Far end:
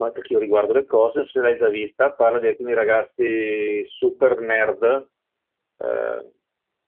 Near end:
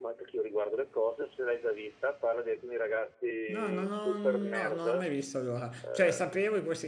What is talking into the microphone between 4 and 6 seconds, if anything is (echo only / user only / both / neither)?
both